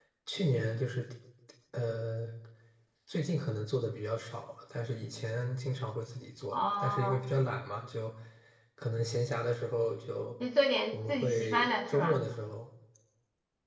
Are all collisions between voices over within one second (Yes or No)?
No